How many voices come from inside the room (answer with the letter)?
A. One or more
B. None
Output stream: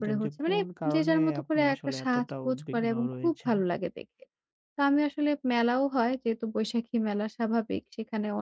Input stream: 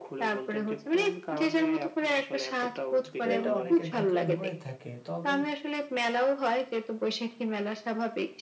A